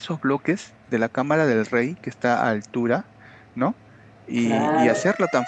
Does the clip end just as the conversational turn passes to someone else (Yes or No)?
No